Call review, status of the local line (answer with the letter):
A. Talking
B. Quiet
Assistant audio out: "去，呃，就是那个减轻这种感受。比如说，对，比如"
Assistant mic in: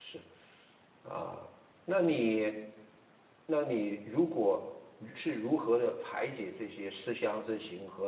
A